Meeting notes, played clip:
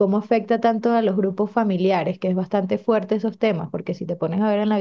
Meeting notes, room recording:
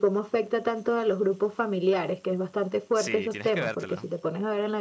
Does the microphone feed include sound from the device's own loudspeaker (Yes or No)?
Yes